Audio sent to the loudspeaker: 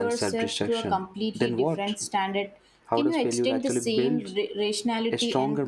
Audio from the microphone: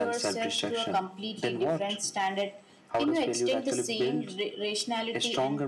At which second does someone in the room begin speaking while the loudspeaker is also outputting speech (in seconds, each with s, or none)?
none